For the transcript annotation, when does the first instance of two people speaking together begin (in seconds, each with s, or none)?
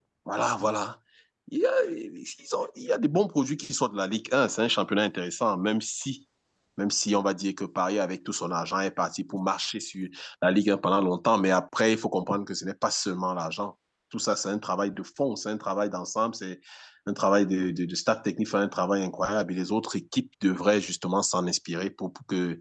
none